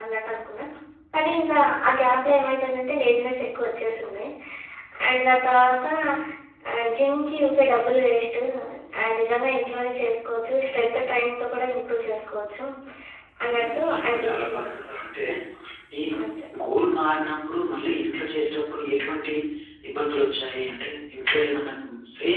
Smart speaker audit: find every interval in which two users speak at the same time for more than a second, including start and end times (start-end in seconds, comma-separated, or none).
13.5-14.9